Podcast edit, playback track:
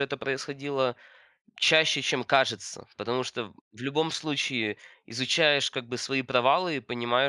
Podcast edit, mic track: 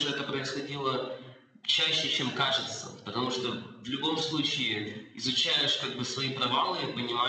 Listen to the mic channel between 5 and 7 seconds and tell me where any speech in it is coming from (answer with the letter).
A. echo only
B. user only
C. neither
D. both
A